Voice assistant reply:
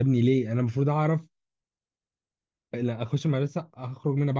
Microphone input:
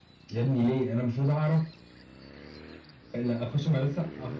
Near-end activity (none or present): none